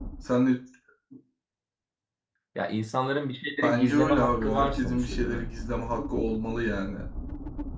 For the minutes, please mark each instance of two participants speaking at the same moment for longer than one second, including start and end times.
3.6-5.5

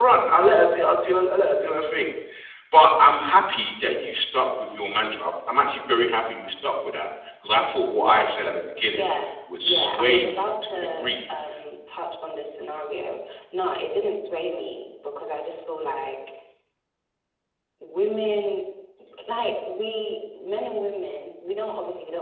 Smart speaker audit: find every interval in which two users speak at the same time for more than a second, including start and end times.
9.6-11.1

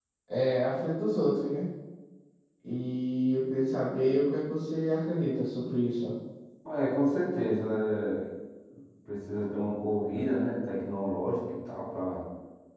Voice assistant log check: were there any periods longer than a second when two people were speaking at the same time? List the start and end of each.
none

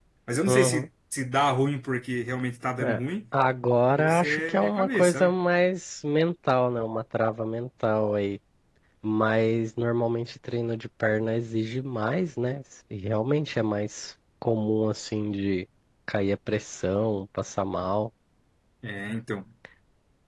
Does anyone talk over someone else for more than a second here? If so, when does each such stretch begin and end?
4.0-5.3

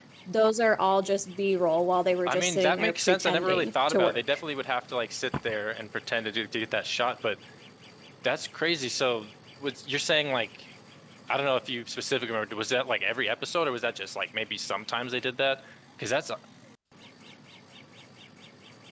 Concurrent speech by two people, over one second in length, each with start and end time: 2.2-4.4

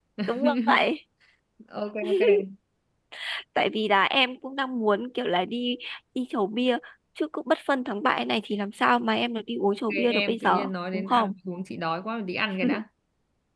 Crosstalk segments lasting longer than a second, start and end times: 9.9-11.3

